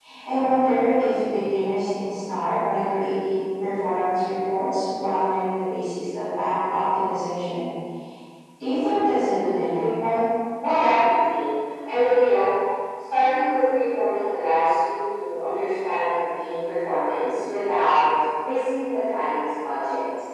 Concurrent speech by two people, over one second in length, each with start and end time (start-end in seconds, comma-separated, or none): none